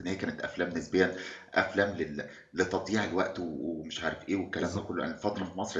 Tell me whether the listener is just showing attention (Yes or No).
Yes